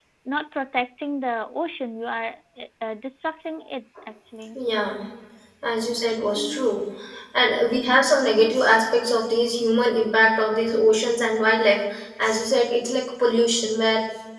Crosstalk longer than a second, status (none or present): none